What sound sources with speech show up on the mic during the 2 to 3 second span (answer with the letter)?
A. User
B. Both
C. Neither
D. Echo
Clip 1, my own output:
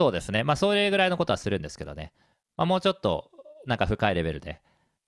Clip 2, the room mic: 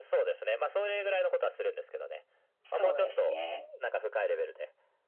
B